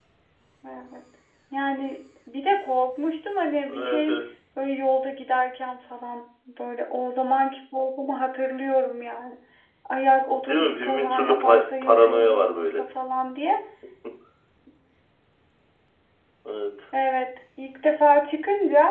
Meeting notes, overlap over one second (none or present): present